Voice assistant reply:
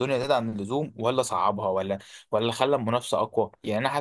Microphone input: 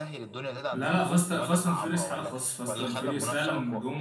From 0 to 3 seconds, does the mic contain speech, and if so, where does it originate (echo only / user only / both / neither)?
both